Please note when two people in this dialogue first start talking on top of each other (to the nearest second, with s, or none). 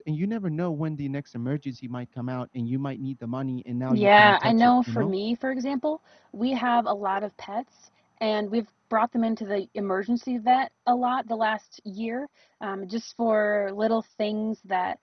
4 s